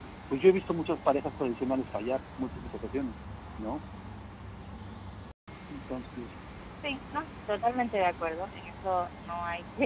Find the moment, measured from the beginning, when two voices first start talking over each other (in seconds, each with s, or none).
none